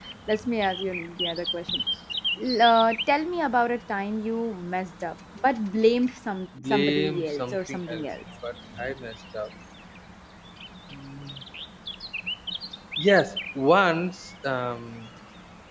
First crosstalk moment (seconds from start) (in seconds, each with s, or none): 6.5 s